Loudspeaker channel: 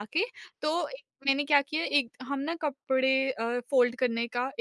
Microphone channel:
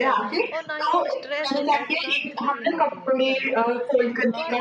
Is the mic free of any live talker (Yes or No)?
No